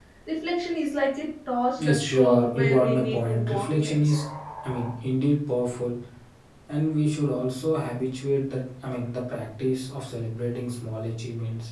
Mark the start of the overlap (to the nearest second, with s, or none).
2 s